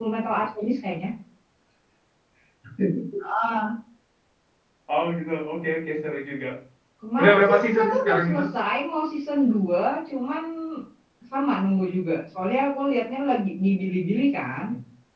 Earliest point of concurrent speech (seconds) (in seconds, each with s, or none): 7.2 s